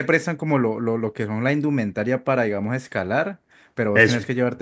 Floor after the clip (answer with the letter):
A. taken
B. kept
B